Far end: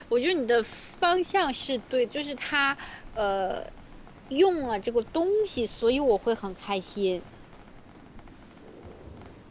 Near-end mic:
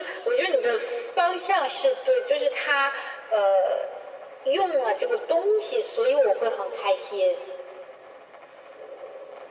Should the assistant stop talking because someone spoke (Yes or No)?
No